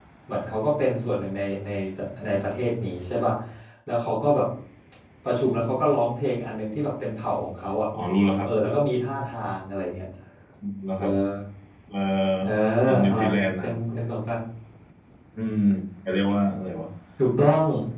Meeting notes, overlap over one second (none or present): none